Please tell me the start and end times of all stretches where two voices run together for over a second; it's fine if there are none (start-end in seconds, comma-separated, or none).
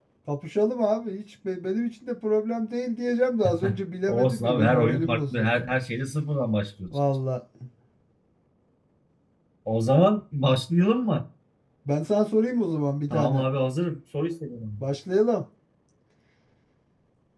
4.1-5.6